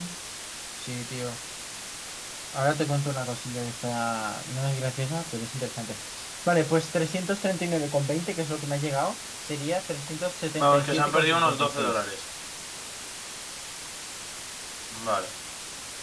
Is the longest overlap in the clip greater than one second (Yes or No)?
Yes